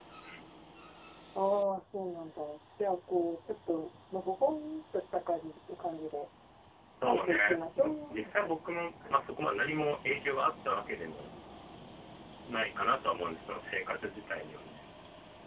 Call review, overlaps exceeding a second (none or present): present